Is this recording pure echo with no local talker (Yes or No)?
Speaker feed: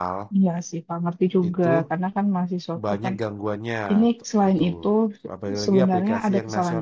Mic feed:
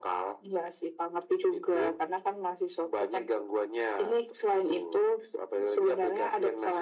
Yes